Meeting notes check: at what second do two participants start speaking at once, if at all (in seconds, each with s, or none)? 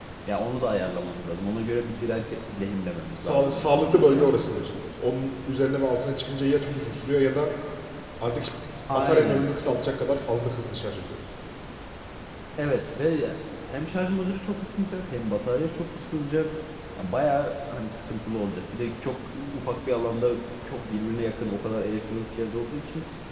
3.1 s